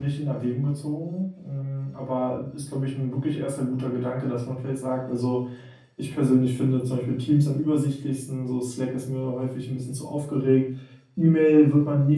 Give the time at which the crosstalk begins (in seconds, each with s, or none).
none